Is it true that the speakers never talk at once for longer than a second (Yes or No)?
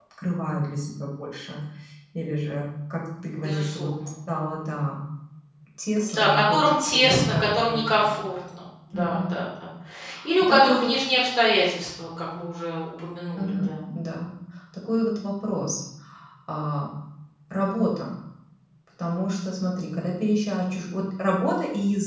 No